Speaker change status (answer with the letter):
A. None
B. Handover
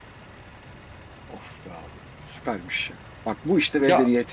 A